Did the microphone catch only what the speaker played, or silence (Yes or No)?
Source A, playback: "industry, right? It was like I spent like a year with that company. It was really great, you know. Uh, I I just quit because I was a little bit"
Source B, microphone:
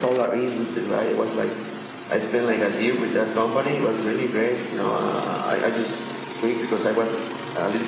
Yes